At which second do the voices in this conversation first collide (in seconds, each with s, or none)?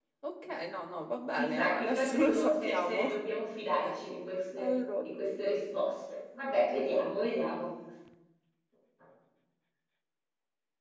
1.4 s